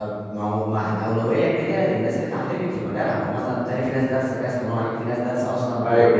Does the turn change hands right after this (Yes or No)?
Yes